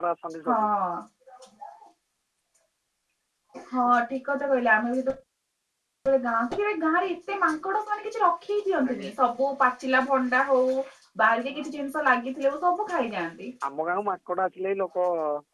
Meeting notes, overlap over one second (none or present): none